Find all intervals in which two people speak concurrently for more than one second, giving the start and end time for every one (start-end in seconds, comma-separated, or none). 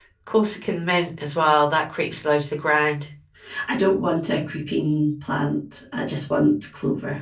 none